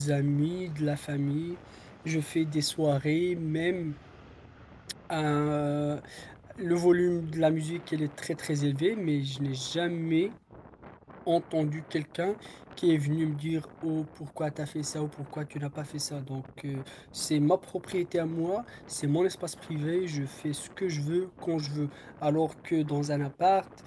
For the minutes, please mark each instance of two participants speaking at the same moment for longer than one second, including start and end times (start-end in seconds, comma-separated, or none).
none